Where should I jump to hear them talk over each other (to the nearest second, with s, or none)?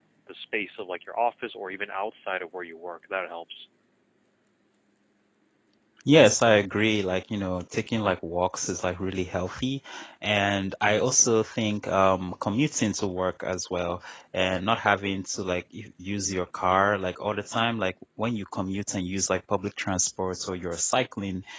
none